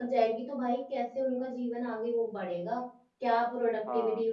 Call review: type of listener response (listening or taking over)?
listening